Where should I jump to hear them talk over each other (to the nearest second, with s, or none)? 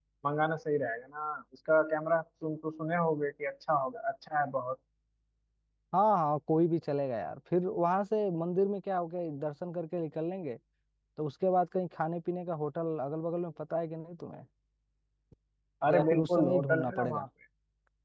16 s